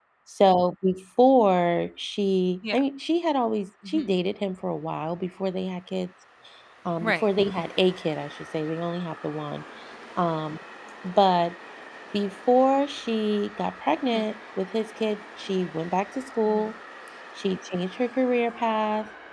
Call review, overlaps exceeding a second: none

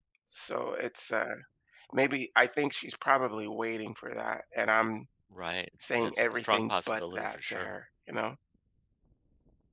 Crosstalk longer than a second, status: present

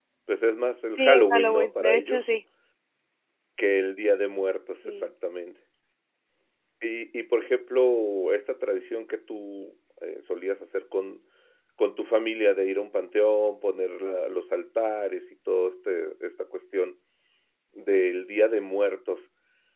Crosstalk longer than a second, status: present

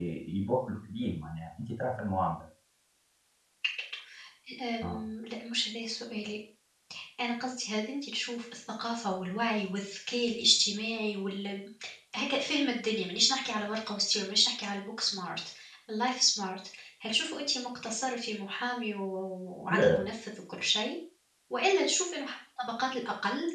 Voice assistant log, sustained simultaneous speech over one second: none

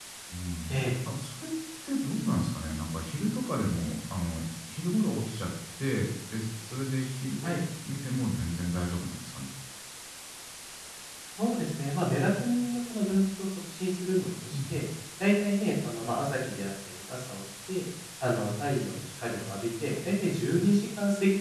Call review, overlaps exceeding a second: none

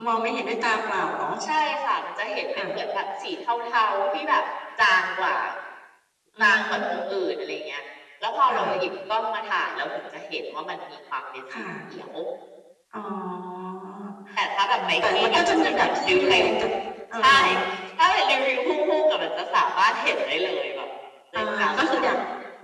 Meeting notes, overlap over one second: present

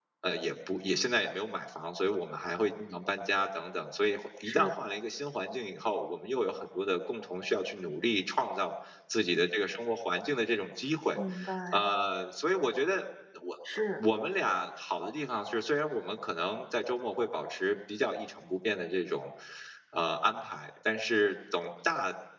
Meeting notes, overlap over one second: none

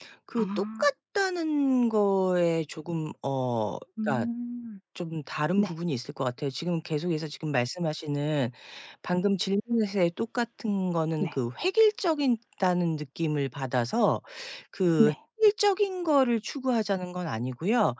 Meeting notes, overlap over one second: none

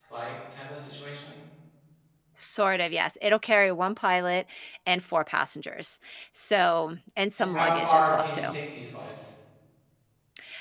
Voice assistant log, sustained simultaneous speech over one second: present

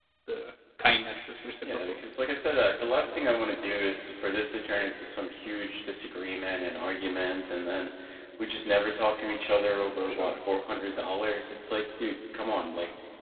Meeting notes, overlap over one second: none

